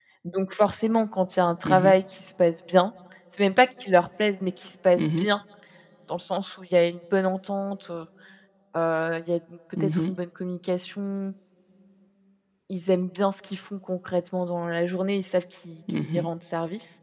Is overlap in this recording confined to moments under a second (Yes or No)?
Yes